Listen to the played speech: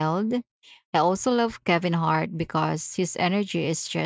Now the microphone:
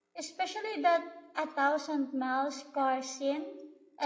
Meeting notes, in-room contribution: present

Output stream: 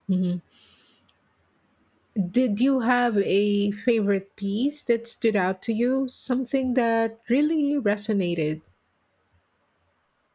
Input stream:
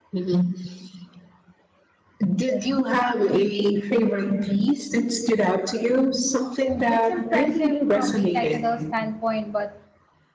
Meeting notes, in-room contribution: present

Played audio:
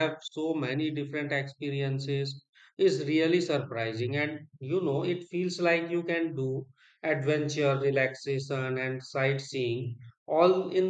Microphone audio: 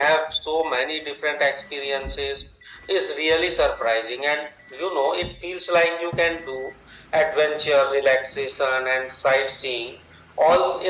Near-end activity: none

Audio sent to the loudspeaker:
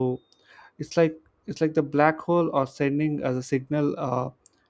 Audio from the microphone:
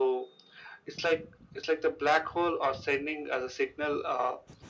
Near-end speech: none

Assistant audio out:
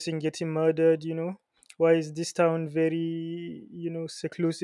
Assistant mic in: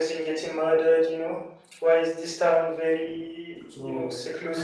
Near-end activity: present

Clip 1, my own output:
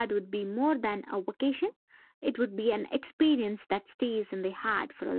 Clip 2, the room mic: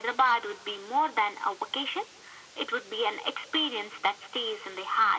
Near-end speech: none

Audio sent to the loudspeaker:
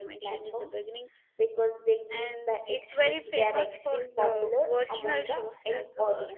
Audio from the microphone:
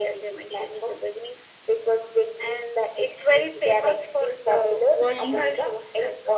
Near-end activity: present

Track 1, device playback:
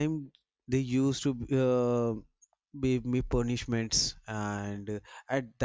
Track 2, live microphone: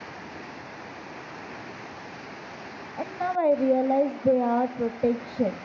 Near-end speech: present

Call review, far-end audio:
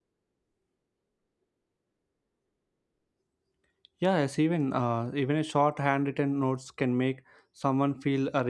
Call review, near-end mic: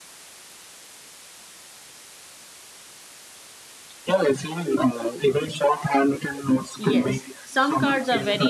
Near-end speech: present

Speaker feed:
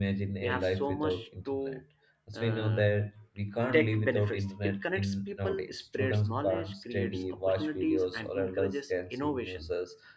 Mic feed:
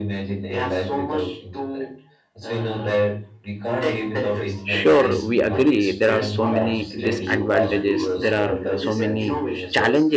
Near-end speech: present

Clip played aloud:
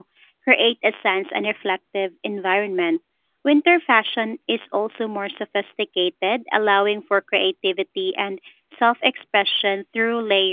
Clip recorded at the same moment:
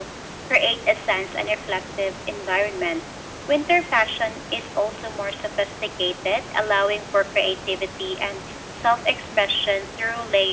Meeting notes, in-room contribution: none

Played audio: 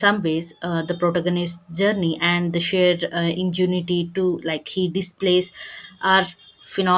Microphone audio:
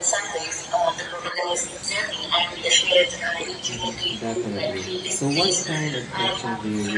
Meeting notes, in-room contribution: present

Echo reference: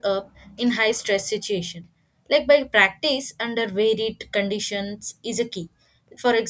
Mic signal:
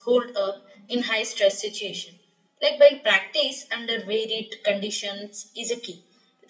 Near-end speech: none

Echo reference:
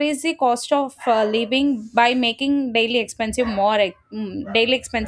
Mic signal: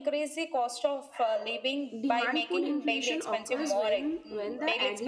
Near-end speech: present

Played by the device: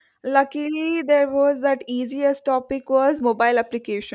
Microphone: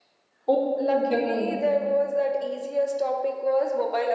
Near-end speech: present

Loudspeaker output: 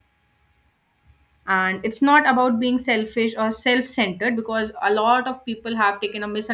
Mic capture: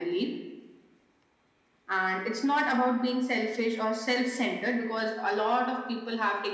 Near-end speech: none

